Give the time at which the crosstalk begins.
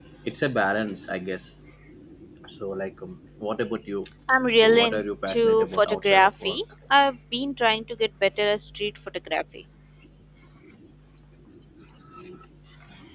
4.3 s

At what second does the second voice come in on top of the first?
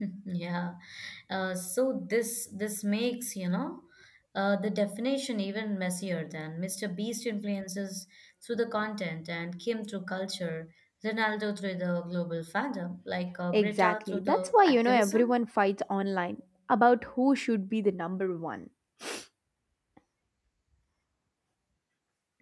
13.5 s

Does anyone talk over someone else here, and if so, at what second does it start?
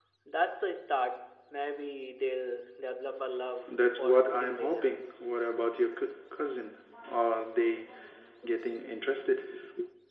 3.7 s

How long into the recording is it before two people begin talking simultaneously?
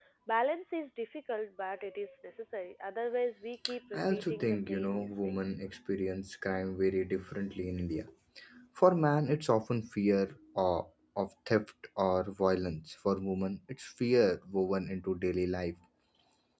3.9 s

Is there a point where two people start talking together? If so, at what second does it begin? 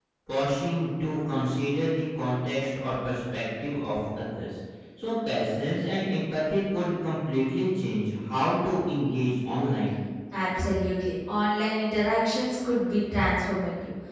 none

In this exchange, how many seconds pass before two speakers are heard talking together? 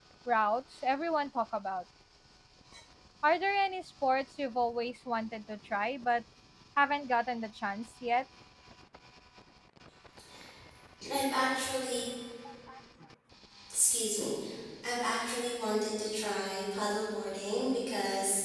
none

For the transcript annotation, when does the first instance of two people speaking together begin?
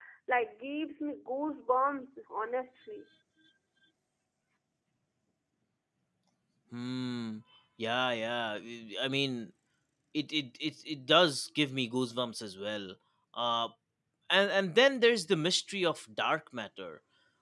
none

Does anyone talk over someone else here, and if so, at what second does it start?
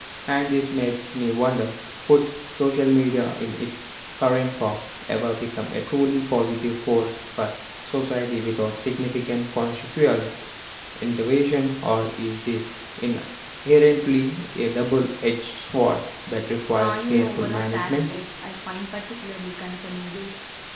16.8 s

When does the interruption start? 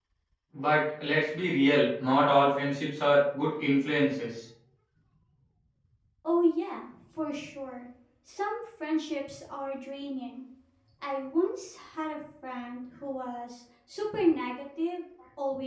none

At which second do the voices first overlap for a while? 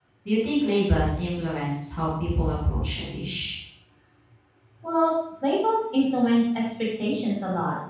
none

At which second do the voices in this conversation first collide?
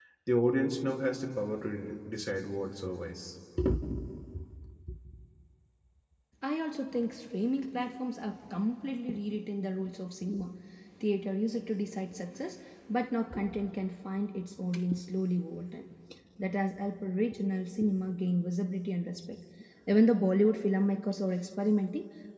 none

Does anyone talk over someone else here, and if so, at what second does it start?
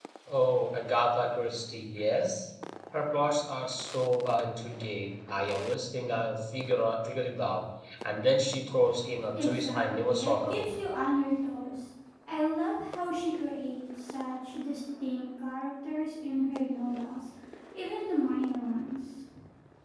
9.3 s

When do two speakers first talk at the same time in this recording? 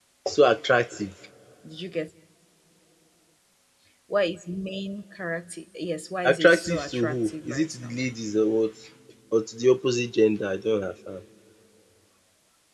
6.2 s

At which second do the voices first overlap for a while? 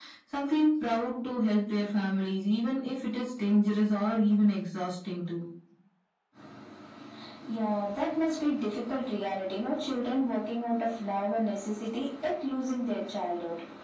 none

